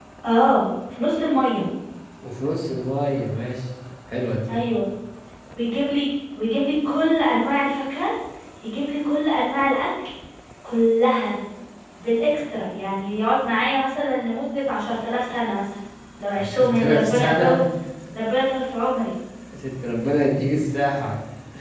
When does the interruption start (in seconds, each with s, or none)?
16.4 s